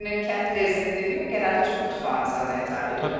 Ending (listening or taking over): listening